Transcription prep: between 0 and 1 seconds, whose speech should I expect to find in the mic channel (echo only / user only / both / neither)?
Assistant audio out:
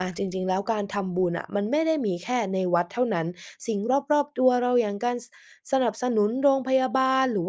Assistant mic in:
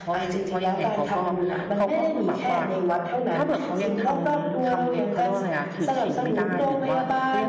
both